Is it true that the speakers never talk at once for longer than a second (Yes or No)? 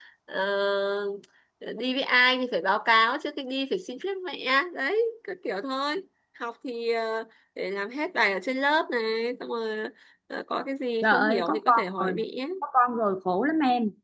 No